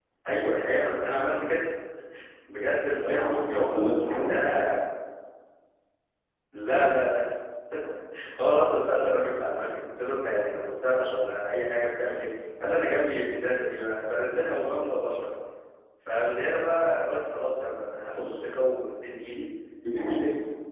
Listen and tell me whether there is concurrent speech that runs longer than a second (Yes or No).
Yes